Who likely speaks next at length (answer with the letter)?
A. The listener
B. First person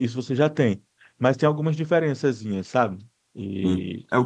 A